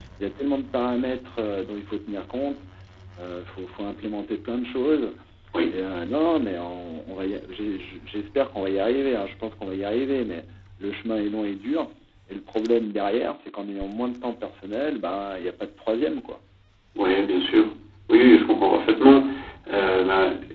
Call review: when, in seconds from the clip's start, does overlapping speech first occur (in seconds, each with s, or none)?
none